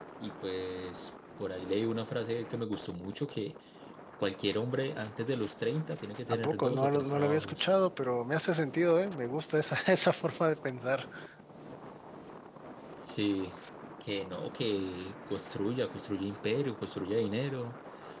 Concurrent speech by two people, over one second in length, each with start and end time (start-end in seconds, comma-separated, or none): 6.3-7.7